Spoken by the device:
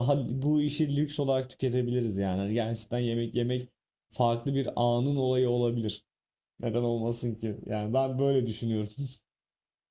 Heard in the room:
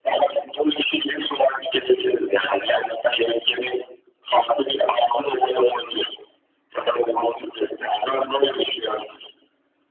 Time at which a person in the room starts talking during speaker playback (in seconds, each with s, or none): none